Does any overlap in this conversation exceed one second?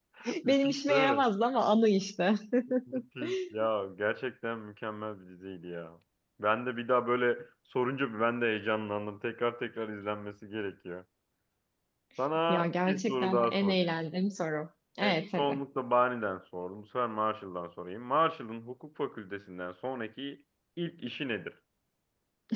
Yes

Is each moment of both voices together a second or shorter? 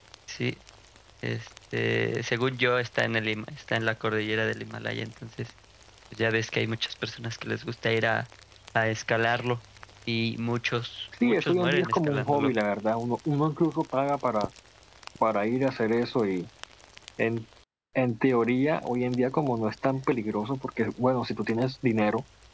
No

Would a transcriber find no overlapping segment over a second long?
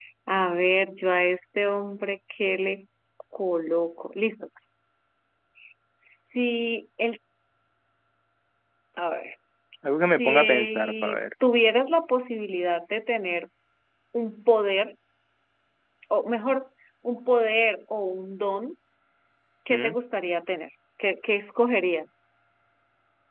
No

